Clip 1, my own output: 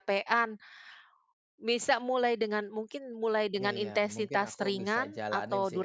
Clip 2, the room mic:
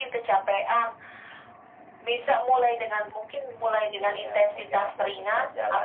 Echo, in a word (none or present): present